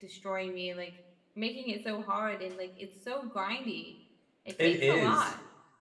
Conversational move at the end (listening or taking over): taking over